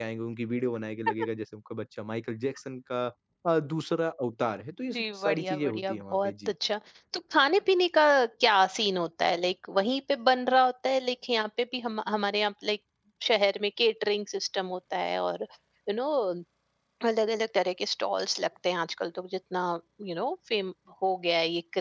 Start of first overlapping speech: 4.9 s

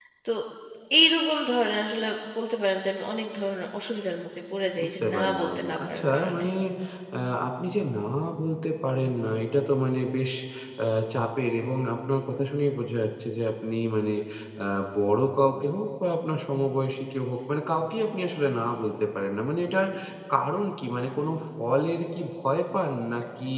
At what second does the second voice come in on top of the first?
4.8 s

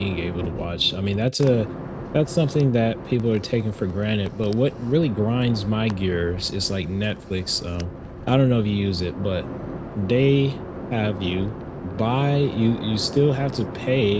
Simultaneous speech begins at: none

